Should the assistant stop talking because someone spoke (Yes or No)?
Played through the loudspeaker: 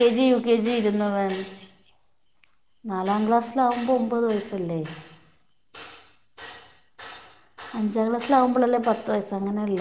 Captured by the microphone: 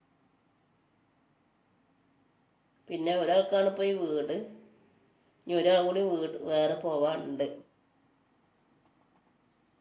Yes